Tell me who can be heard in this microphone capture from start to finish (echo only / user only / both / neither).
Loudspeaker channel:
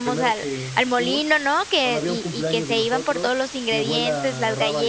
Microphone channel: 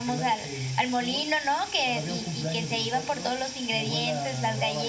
echo only